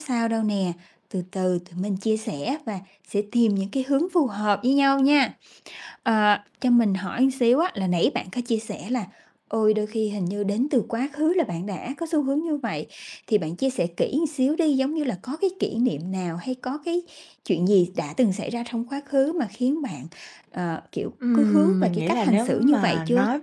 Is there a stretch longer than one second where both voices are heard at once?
Yes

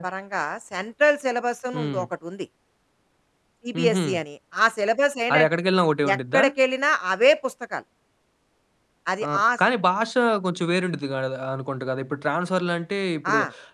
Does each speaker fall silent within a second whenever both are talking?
Yes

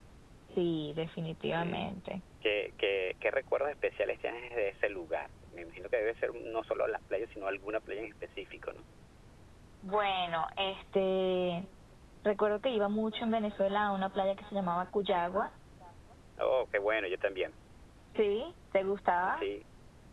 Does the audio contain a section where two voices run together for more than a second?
No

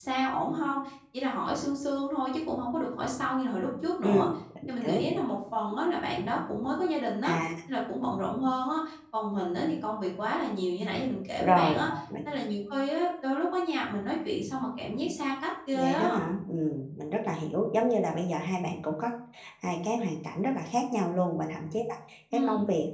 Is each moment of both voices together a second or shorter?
Yes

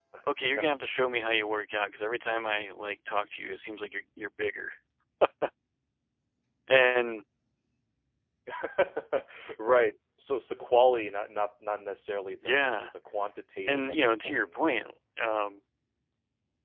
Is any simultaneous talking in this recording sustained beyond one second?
Yes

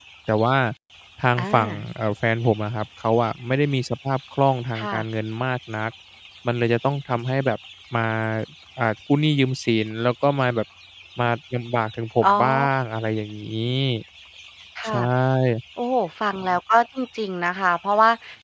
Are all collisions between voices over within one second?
Yes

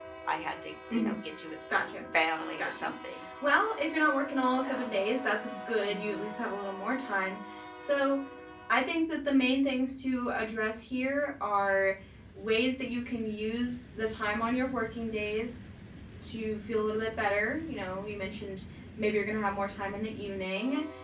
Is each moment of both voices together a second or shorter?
Yes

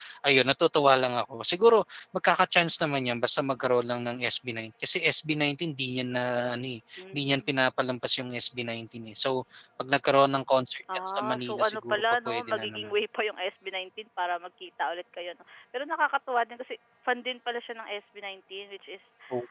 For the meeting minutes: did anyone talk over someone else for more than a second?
Yes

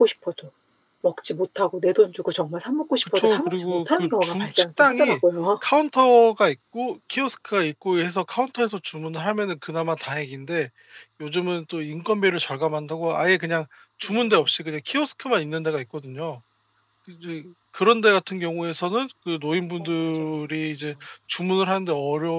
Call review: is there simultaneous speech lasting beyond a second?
Yes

